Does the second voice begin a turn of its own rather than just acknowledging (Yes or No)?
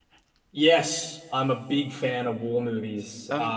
No